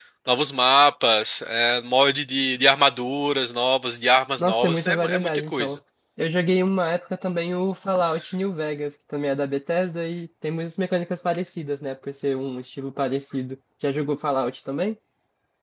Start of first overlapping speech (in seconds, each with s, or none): 4.4 s